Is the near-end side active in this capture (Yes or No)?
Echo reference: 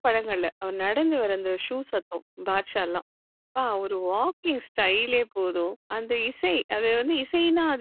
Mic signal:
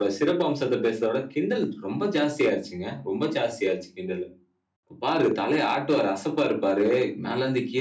Yes